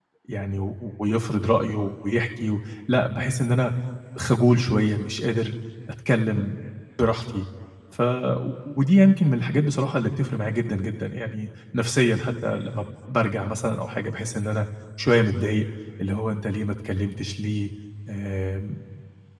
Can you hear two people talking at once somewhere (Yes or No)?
No